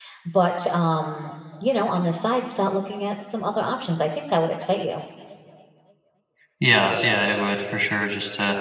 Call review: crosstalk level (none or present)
none